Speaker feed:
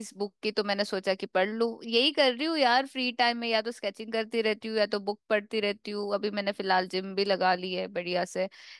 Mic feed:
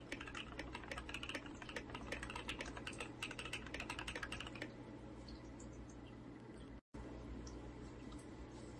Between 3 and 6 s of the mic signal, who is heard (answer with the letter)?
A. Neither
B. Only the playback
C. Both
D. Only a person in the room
A